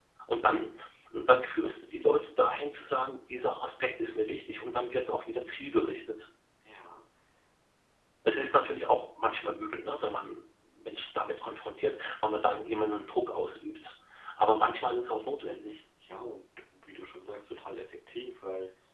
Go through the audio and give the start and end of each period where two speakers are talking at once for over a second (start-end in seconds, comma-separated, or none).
none